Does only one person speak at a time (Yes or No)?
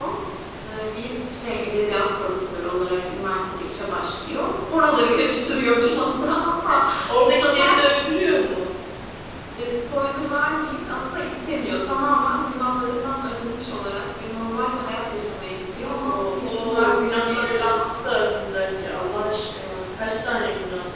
No